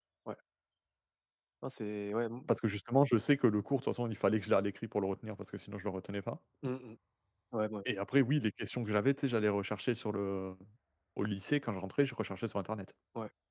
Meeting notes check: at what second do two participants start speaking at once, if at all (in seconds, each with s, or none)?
none